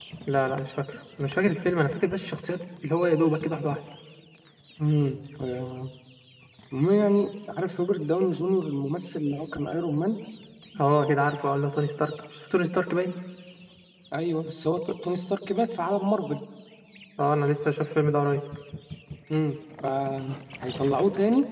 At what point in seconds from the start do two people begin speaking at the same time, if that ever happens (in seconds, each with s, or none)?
none